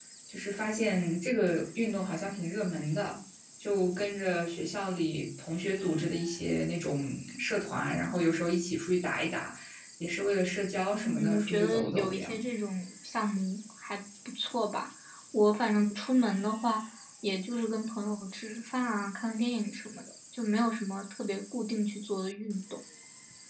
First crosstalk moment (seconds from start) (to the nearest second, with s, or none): 11 s